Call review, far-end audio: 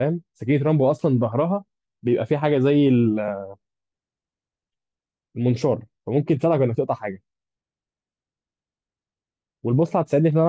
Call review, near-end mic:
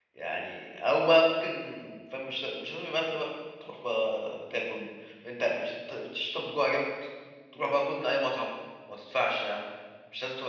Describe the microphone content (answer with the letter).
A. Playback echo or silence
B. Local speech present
B